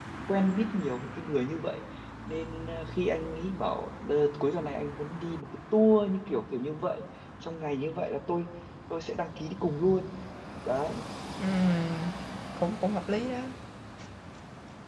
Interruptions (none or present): none